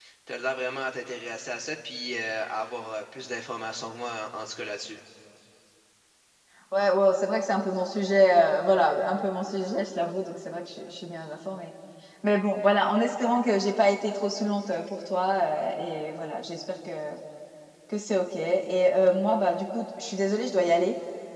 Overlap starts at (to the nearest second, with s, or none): none